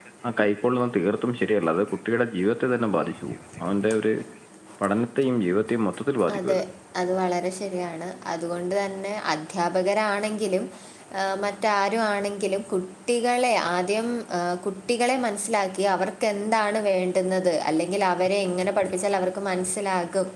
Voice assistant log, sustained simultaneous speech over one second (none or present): none